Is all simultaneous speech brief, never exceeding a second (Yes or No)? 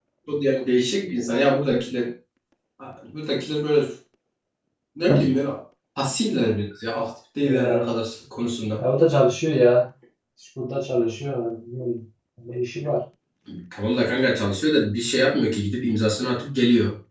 Yes